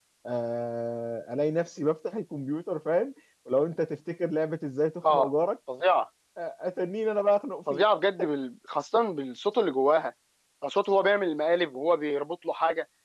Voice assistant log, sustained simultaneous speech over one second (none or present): none